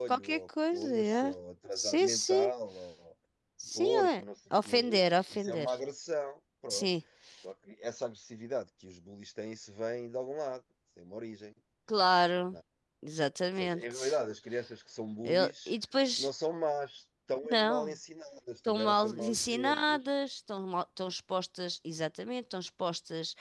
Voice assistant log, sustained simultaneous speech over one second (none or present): present